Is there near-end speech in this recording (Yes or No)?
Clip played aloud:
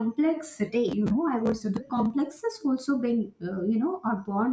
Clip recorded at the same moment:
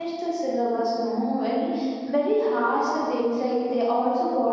Yes